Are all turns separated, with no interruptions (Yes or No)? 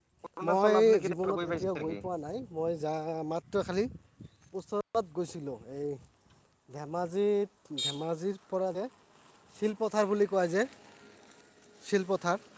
No